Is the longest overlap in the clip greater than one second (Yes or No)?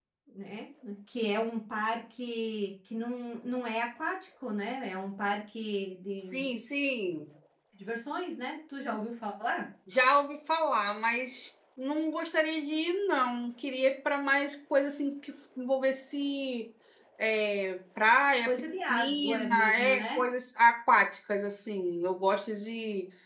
Yes